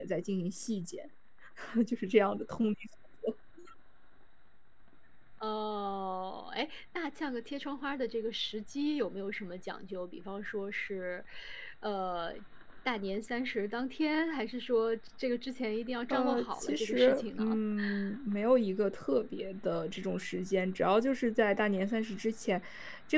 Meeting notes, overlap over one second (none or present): present